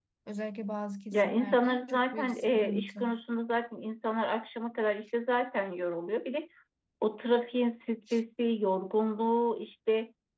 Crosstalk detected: Yes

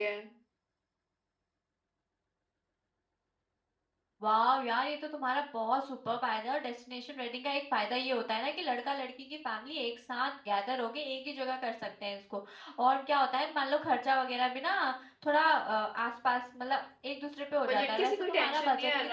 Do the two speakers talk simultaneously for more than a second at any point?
Yes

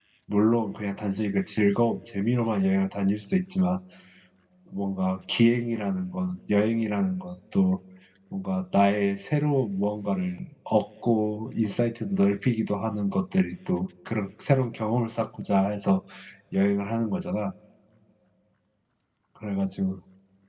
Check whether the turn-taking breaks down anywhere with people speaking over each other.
No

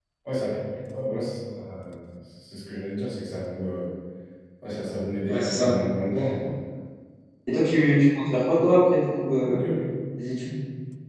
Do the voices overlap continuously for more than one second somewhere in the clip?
No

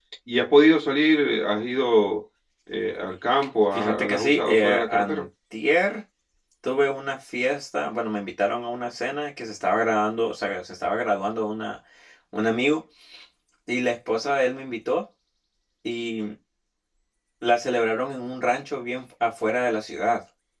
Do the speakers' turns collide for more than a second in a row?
Yes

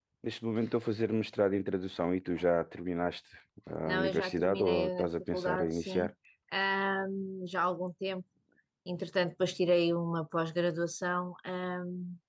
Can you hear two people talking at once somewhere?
Yes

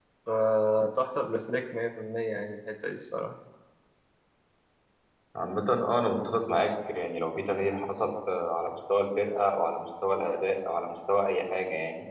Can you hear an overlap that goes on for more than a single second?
No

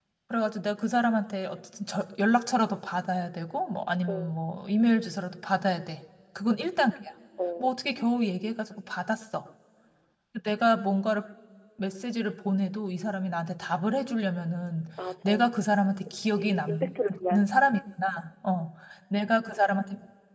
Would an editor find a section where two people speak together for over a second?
Yes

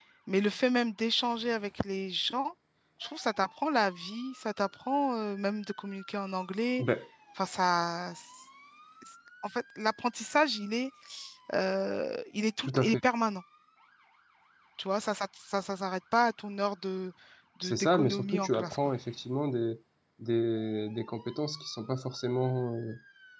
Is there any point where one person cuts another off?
Yes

